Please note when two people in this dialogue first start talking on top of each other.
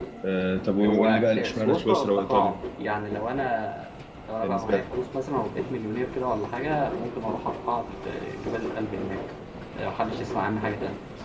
0.8 s

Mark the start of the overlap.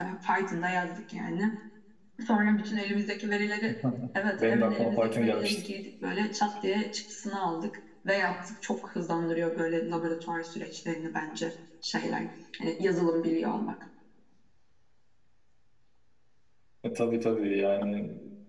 4.4 s

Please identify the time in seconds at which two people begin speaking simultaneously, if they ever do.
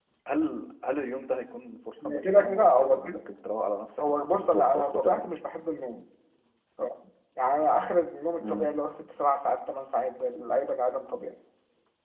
2.0 s

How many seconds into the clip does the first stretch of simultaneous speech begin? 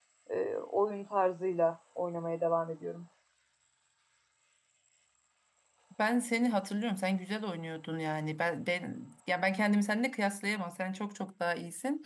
none

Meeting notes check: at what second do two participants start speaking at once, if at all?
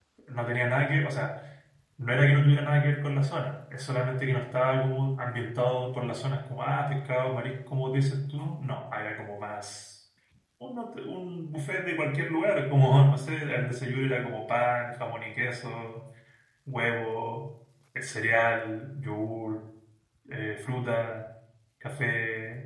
none

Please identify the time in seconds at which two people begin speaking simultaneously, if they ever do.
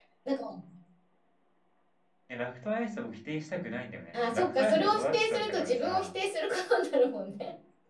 4.1 s

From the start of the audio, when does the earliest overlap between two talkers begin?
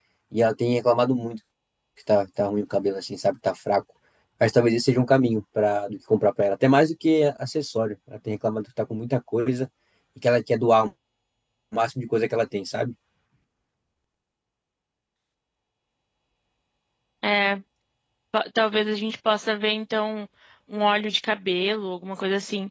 none

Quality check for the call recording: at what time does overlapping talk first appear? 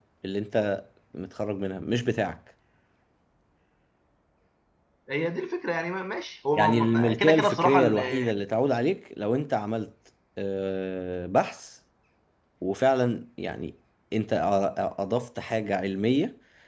6.5 s

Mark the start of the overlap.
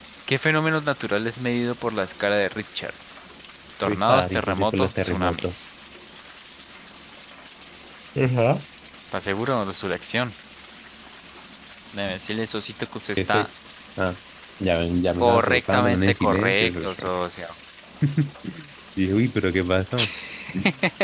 3.8 s

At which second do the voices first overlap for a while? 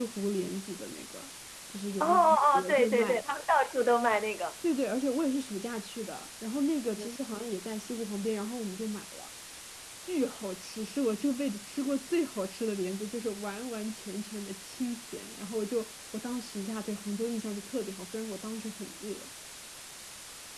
2.0 s

